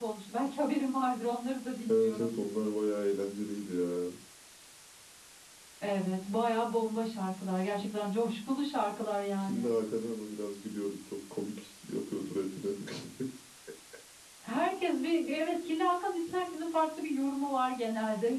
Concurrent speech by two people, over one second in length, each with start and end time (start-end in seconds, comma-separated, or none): none